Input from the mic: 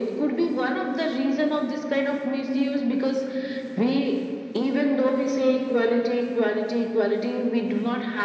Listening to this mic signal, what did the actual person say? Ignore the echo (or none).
none